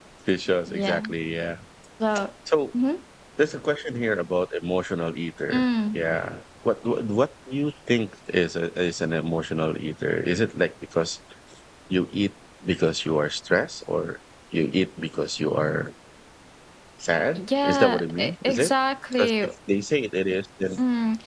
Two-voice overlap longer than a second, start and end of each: 17.4-18.7

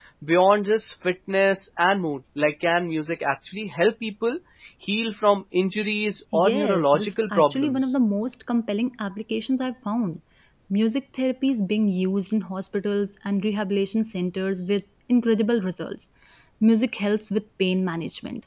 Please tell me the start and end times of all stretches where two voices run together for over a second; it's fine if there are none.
6.3-7.9

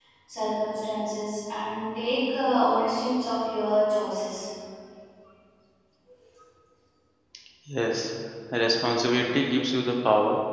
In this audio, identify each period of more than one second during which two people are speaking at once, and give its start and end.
none

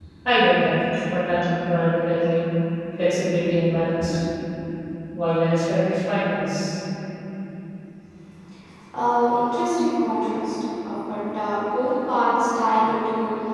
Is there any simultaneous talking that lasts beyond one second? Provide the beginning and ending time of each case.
none

